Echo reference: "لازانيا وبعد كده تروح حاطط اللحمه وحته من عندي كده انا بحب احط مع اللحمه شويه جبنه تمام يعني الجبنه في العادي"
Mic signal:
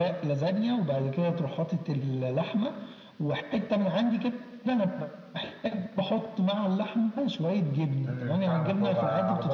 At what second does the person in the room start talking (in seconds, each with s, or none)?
8.1 s